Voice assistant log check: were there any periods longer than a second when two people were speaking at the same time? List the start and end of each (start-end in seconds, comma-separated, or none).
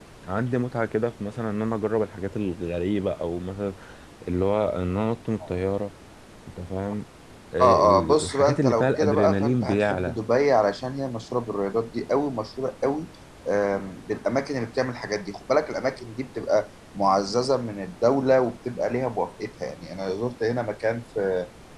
7.6-10.2